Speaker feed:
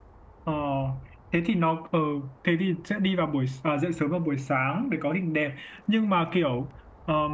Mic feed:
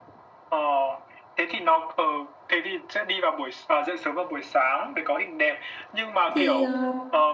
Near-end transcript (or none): thì ờ,